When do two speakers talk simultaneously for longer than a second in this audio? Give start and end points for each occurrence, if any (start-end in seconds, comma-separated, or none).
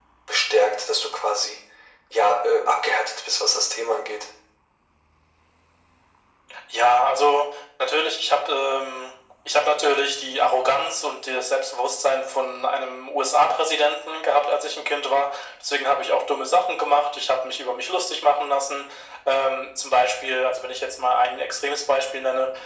none